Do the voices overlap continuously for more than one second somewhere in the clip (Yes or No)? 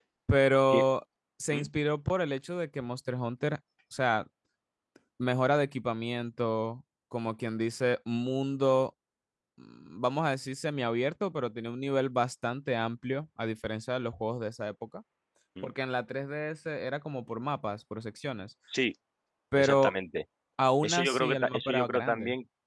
Yes